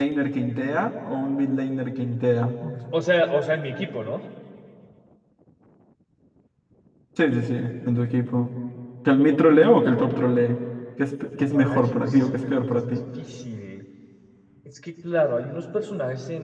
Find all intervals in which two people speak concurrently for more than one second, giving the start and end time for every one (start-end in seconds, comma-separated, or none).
11.4-13.0